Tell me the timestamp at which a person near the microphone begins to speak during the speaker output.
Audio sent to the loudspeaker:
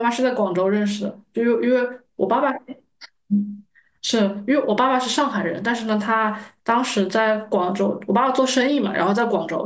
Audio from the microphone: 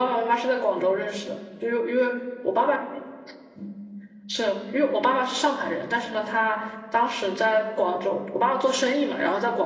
none

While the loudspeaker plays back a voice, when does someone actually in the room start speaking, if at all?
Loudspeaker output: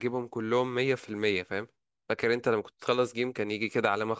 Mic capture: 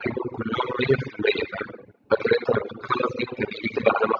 none

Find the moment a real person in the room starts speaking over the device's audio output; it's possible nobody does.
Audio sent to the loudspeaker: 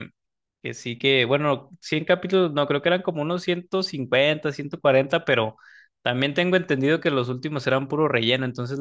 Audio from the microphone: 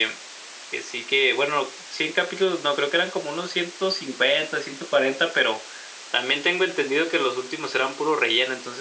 none

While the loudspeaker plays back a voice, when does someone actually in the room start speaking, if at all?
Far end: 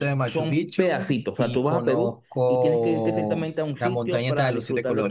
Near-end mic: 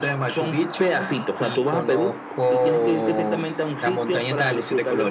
none

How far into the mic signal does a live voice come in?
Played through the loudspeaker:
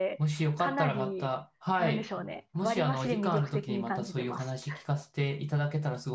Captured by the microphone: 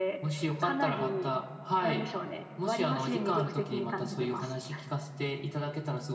none

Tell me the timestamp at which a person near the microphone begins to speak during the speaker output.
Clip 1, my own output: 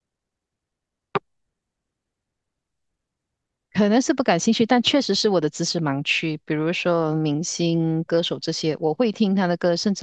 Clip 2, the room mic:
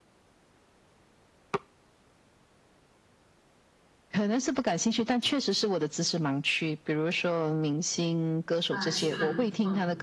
8.7 s

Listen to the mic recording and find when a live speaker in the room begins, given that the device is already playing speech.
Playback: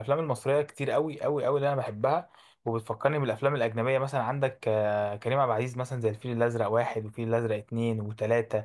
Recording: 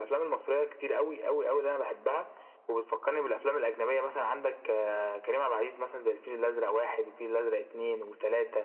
none

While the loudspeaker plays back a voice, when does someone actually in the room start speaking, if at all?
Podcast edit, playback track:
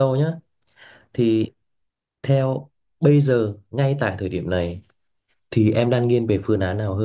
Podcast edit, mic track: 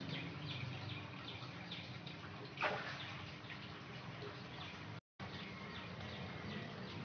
none

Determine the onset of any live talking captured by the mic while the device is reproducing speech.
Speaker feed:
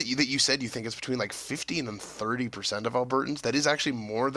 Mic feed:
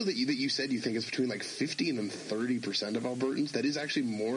none

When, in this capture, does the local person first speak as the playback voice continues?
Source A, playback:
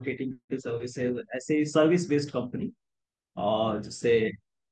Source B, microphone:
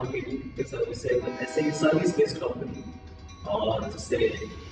none

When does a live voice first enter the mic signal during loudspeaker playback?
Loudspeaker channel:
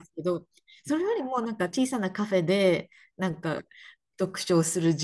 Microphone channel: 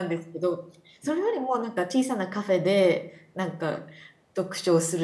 none

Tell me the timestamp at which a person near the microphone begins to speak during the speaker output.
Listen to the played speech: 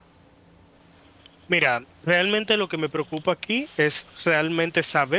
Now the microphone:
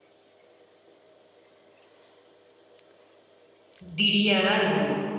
3.8 s

